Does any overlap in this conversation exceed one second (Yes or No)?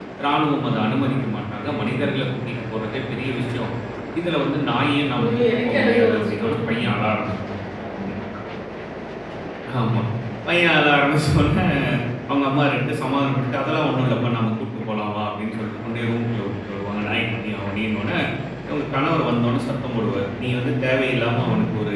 Yes